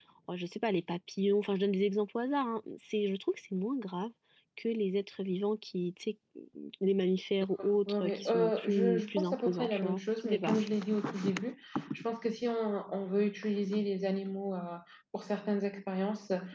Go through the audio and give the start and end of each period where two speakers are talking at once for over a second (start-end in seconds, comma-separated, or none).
7.9-10.6